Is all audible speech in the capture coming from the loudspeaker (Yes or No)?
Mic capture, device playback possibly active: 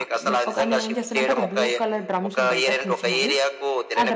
No